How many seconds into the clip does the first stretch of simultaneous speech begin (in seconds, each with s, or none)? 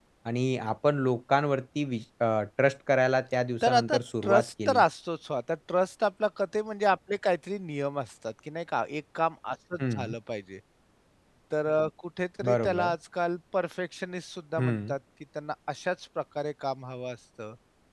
3.6 s